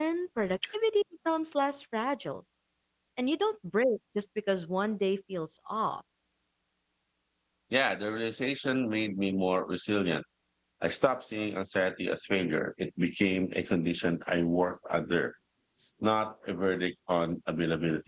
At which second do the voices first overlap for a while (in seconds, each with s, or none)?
none